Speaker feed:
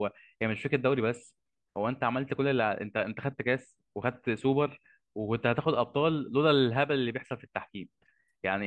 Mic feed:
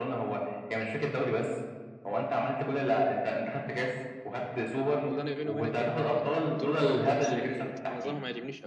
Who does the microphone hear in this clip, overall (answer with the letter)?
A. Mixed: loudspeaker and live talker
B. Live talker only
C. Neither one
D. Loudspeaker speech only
A